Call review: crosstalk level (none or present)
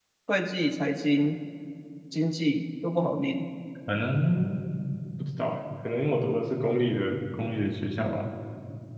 none